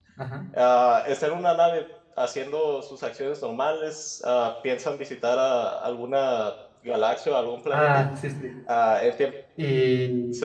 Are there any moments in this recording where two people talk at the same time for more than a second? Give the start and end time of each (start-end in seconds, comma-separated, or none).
none